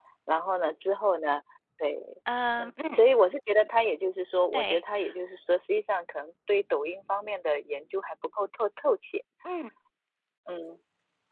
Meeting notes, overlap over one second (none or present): none